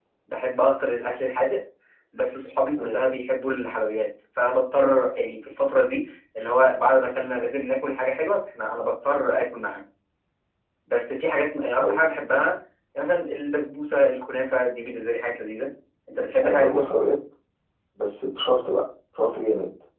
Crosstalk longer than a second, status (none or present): none